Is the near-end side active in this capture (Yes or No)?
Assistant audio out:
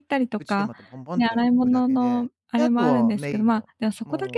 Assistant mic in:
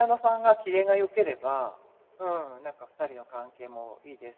Yes